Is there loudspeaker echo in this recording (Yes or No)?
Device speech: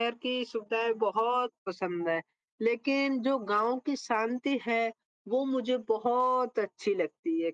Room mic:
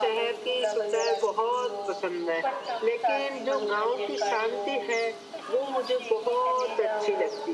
Yes